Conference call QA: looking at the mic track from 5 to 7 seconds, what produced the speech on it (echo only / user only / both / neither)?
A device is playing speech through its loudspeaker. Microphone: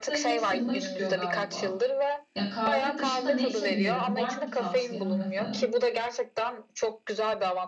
both